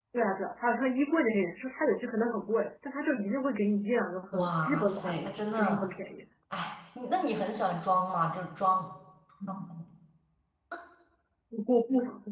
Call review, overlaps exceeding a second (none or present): present